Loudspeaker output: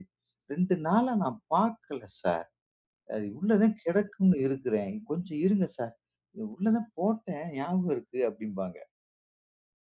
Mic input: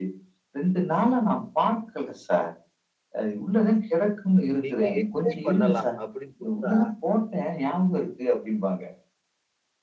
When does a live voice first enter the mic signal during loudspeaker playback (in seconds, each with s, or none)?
4.7 s